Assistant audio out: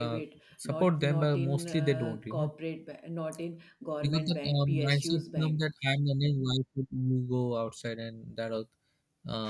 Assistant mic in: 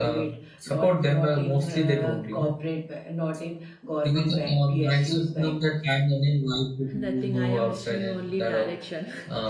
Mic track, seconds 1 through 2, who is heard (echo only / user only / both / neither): echo only